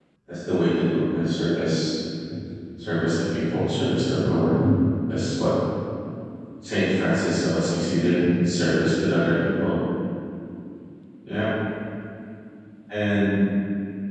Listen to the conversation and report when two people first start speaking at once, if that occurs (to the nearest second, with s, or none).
none